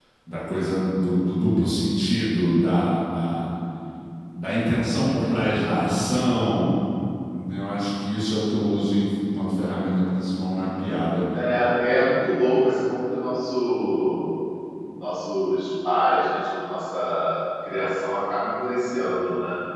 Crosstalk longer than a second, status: none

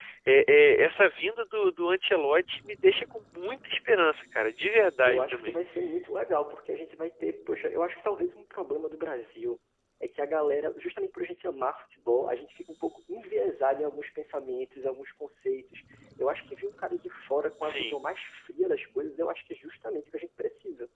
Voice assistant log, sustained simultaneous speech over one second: none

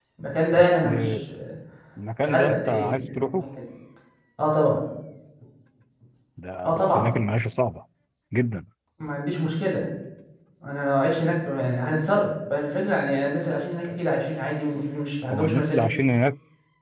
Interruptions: present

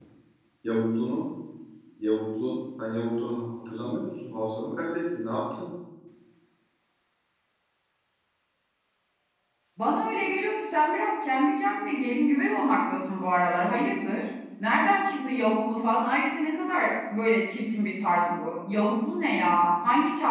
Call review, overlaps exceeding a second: none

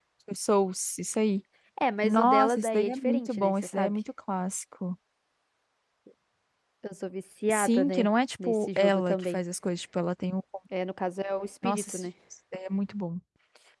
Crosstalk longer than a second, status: present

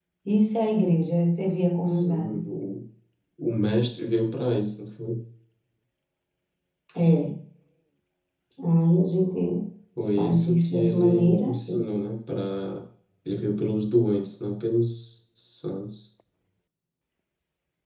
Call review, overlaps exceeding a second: present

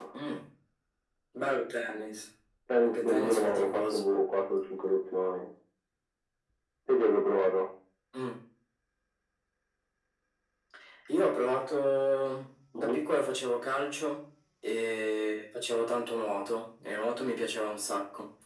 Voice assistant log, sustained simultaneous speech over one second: present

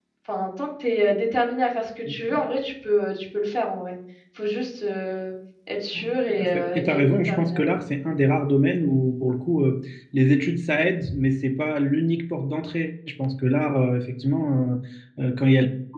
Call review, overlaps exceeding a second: present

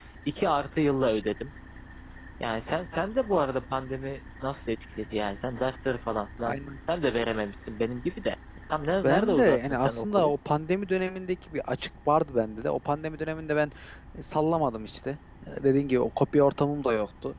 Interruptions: present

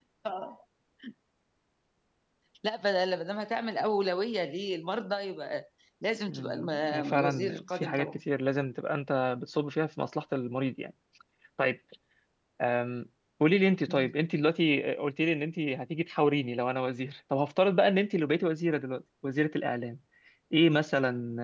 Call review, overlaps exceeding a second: present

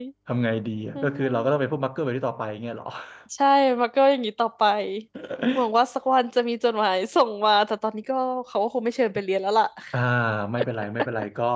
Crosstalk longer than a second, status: none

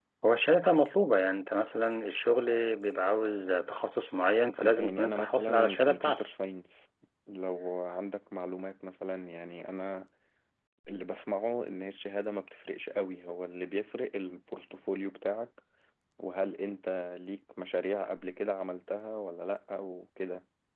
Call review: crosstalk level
present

